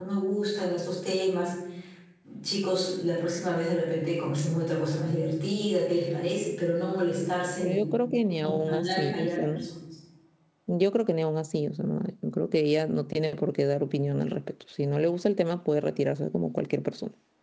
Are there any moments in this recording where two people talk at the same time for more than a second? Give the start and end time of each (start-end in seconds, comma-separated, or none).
8.4-9.7